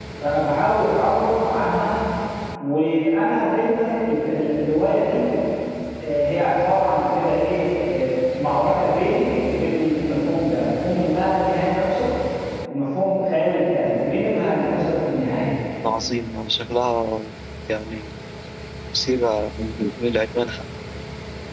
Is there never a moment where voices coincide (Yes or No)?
Yes